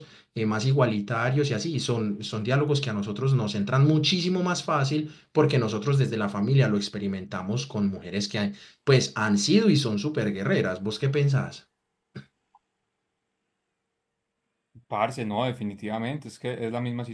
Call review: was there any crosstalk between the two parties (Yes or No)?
No